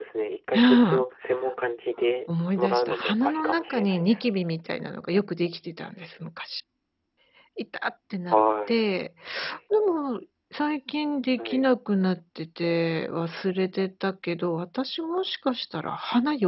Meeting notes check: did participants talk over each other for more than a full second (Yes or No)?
Yes